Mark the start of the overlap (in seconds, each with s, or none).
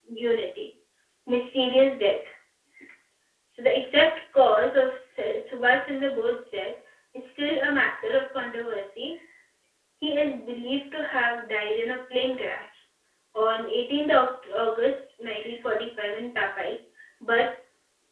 none